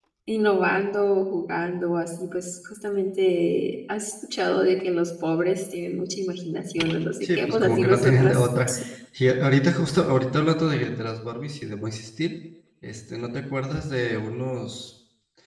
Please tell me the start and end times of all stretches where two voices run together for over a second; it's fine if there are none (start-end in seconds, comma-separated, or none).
7.2-8.5